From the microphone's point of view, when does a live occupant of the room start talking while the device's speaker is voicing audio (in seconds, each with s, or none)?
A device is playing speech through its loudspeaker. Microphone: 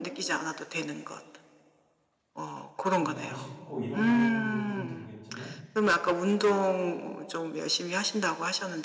2.9 s